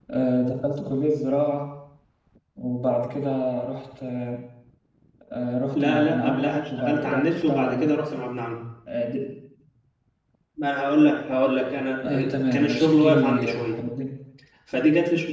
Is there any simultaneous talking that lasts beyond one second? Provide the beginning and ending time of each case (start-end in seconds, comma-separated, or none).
5.7-7.9, 12.0-13.8